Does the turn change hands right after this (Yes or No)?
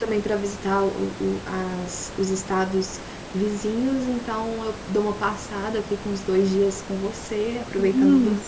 Yes